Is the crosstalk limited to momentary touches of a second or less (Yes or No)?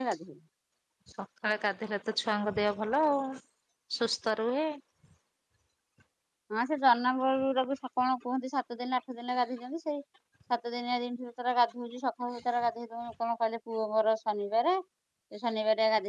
Yes